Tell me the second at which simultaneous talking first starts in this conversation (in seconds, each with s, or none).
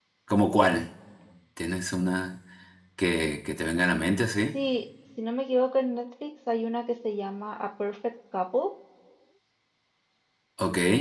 none